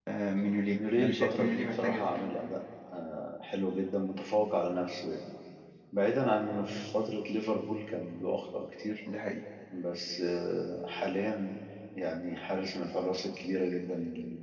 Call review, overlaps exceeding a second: present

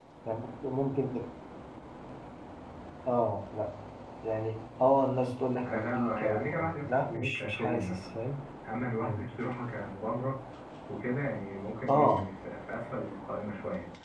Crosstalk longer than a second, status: present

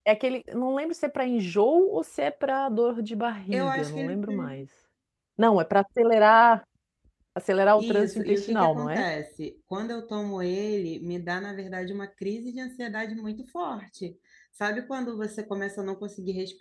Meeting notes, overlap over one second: present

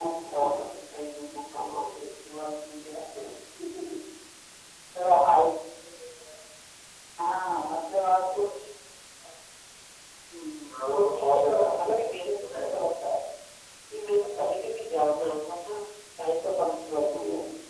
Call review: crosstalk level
present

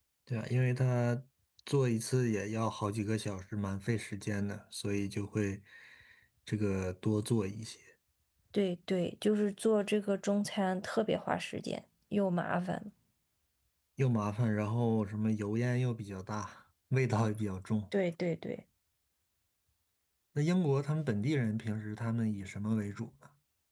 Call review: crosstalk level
none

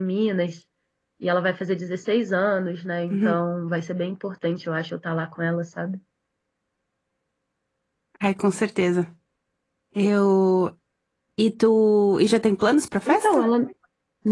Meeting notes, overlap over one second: none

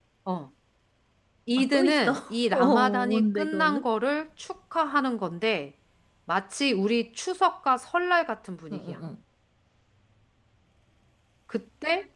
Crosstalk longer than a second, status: present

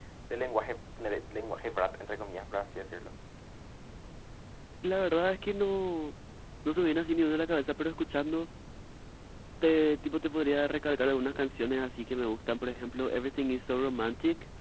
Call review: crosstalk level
none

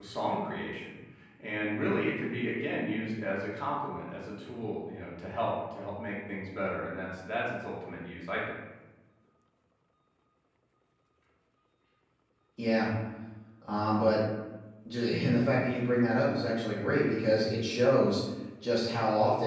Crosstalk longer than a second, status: none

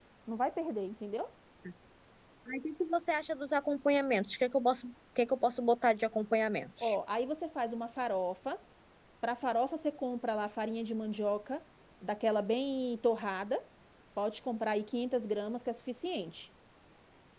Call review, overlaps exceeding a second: none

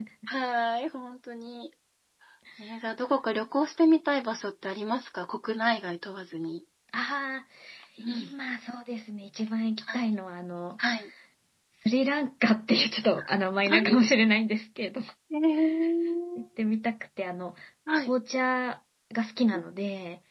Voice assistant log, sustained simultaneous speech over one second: none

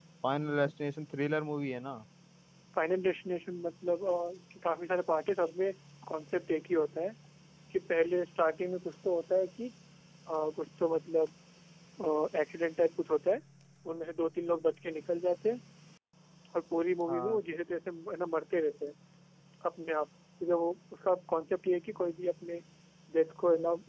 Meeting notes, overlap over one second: none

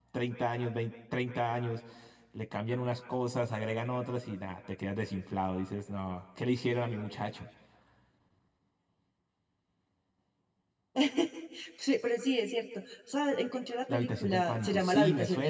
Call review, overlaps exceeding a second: present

